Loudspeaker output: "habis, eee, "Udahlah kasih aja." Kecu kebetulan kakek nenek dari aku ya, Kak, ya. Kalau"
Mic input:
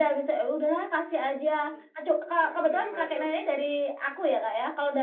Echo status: present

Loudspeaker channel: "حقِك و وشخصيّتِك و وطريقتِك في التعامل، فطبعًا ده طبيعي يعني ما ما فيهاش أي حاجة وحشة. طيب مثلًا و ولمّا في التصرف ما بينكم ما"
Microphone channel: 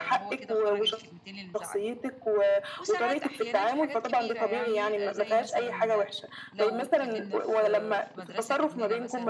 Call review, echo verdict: present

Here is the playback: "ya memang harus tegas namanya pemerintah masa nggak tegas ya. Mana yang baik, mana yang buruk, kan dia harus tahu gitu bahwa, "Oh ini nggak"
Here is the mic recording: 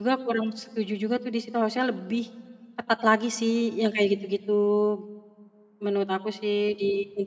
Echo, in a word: none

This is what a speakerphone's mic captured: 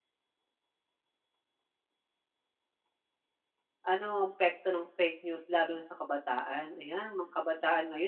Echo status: none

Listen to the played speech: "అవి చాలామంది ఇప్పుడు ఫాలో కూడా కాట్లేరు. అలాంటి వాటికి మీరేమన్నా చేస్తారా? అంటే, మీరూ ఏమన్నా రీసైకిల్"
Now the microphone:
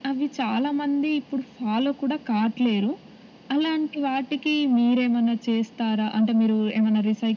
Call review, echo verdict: present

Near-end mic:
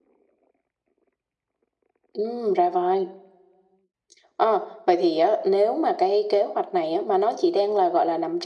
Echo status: present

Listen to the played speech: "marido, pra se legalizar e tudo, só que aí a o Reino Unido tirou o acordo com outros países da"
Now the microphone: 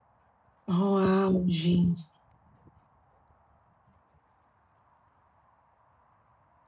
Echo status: none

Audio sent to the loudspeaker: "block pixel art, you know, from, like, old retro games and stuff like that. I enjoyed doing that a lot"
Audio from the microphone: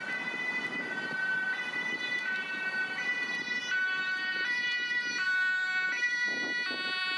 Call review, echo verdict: none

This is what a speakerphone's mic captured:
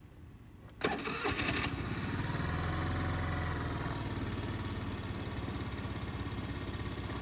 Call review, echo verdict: none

